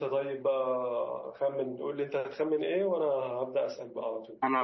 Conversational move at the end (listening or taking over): listening